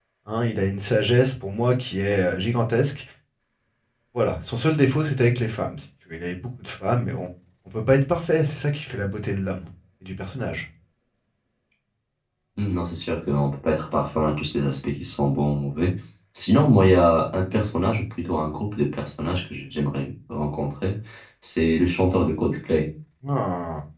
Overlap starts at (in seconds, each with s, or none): none